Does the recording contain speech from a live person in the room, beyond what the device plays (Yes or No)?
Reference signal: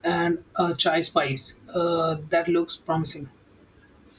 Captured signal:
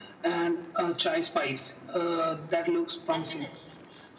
Yes